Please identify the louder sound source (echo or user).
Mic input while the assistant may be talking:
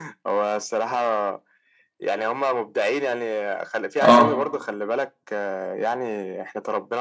user